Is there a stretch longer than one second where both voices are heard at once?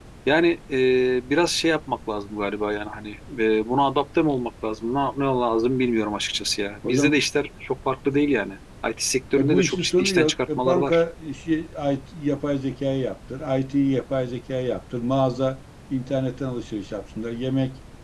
Yes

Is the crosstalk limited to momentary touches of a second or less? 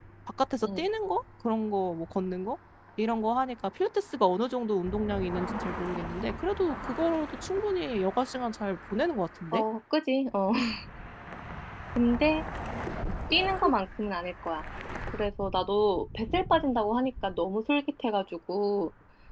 Yes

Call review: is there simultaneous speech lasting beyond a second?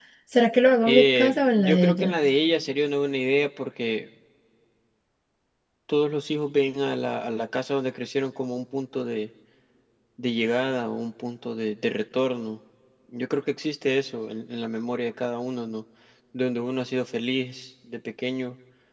Yes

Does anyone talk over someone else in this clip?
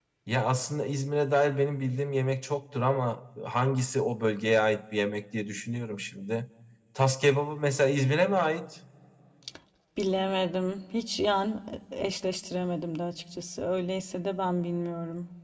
No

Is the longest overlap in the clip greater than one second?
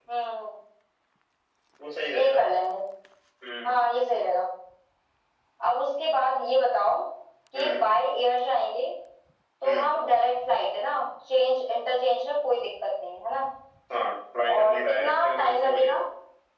Yes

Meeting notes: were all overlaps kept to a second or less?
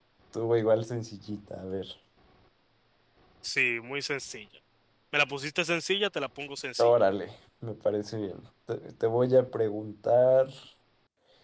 Yes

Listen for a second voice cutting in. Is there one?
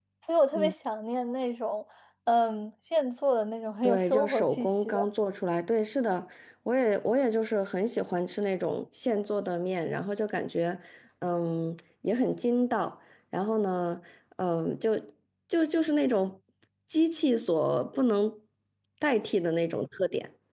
Yes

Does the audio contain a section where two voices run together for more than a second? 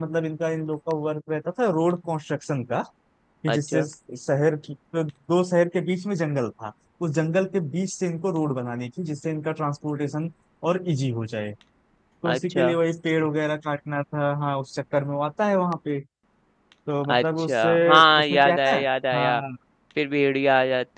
Yes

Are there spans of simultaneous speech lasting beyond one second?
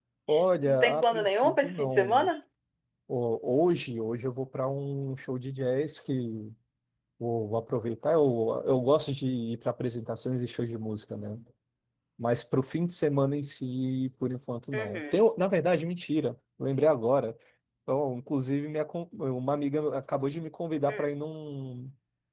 Yes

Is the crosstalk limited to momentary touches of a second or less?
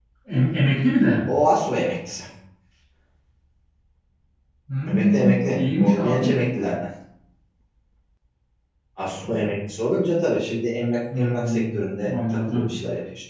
No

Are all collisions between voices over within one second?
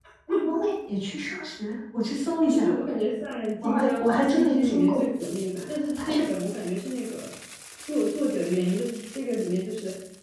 No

